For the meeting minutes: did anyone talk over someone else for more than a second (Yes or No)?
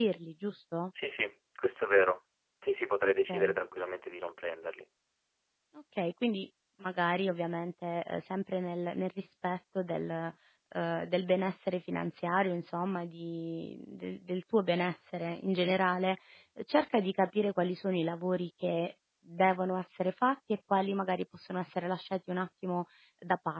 No